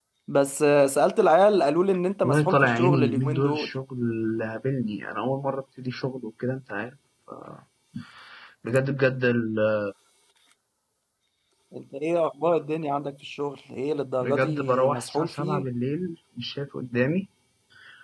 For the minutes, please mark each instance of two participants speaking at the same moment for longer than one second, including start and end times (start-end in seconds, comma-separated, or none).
2.2-3.7, 14.2-15.6